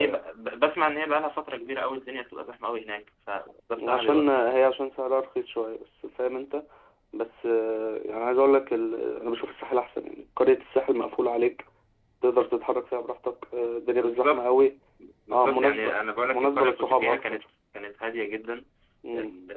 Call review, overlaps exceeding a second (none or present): present